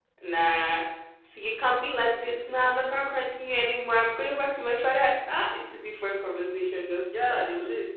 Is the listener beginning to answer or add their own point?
Yes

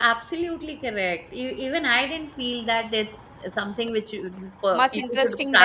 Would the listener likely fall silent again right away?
No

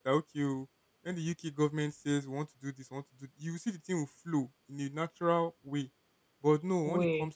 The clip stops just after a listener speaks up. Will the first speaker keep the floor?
Yes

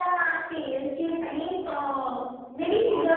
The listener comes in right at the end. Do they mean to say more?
Yes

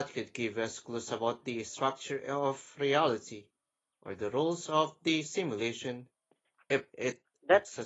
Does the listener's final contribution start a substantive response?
Yes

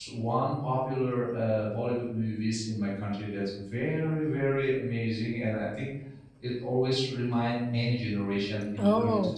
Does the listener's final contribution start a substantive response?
No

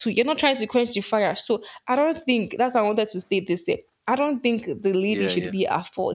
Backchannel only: Yes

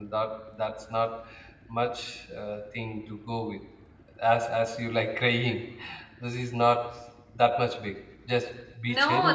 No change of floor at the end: No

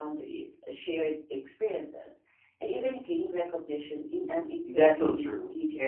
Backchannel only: No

